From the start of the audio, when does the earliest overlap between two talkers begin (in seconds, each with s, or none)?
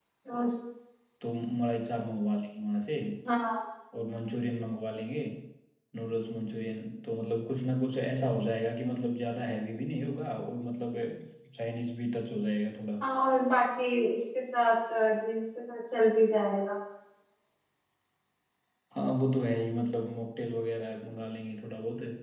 none